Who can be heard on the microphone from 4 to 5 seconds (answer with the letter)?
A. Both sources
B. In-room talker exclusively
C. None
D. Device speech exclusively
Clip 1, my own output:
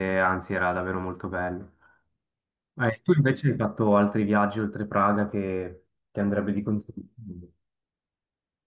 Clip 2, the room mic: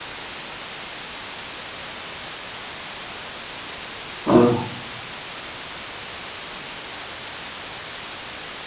B